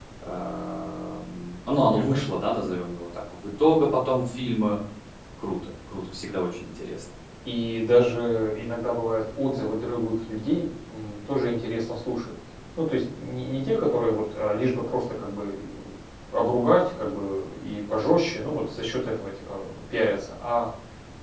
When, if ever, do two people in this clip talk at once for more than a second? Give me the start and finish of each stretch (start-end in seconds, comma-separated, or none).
none